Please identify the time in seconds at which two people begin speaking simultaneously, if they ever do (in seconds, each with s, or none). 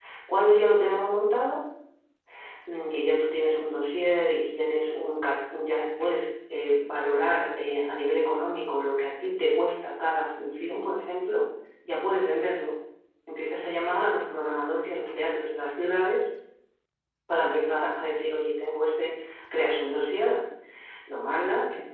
none